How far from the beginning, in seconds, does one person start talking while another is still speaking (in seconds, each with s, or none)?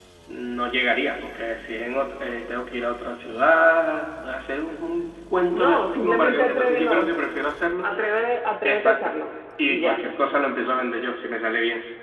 5.5 s